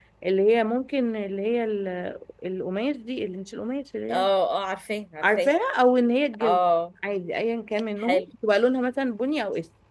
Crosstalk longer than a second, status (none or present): none